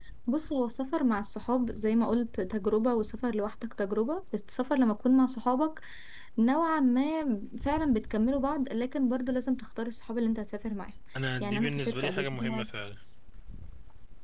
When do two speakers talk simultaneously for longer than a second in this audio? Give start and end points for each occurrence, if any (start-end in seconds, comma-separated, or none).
11.4-12.7